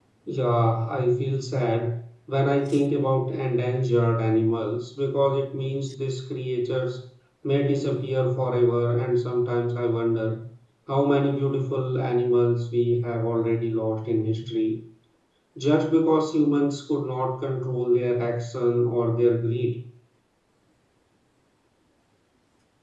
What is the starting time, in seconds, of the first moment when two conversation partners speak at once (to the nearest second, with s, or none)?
none